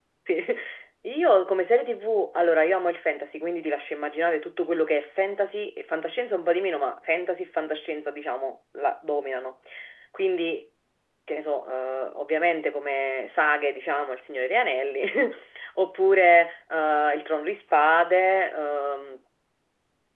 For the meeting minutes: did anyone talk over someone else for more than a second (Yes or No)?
No